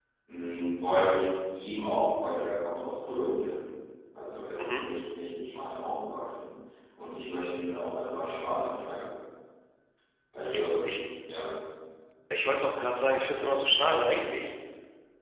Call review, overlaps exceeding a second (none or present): none